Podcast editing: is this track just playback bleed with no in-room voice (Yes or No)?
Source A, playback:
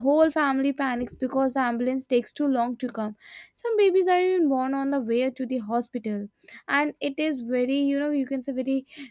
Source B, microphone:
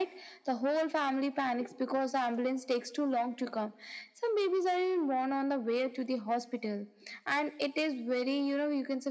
Yes